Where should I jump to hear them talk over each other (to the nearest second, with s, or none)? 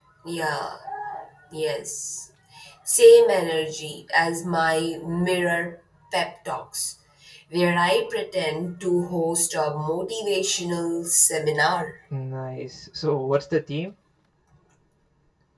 none